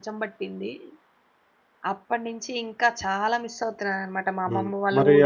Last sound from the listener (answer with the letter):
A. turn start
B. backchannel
A